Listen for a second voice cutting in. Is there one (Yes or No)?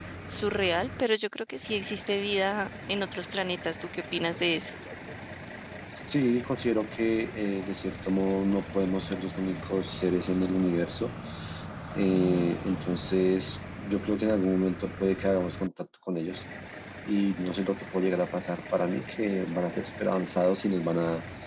No